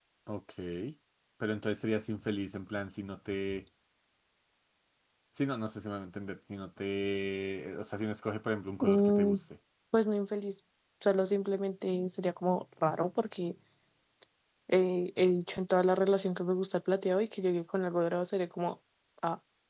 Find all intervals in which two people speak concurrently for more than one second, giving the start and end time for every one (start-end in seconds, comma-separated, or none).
none